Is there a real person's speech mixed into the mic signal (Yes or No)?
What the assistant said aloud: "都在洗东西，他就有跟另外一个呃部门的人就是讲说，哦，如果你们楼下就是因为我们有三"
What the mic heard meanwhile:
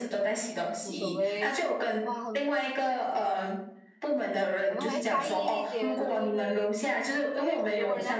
Yes